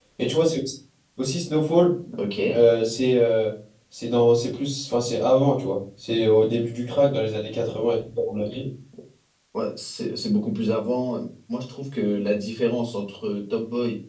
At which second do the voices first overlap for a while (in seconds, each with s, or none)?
none